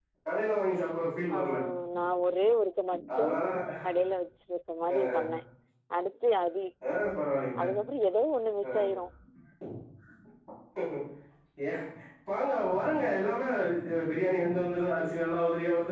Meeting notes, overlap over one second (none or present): none